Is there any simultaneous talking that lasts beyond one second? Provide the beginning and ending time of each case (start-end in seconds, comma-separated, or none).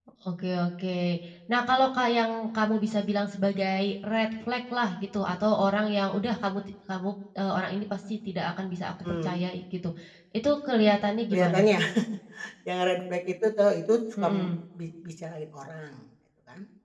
none